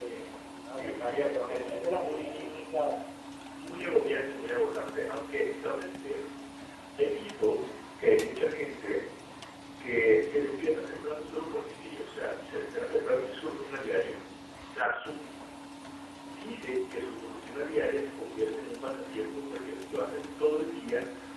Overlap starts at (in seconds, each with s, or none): 0.7 s